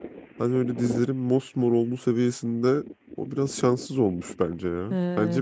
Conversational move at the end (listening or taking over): taking over